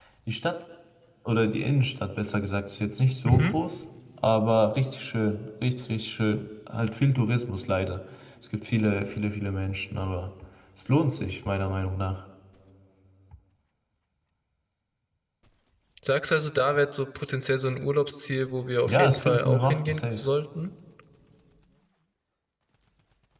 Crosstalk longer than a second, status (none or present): present